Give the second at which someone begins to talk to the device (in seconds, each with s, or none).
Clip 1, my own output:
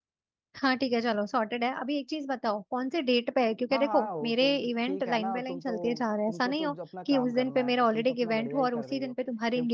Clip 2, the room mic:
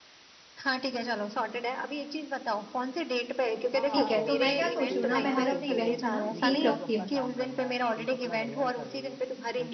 3.9 s